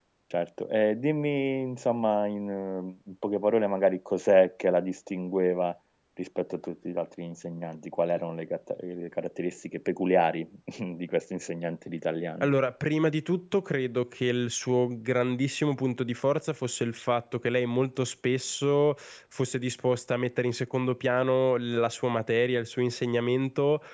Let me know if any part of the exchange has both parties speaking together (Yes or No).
No